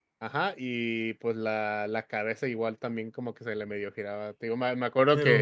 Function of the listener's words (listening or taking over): listening